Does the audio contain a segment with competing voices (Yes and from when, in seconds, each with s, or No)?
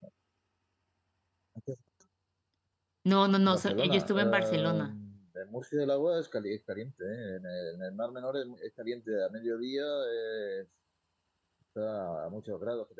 Yes, from 3.4 s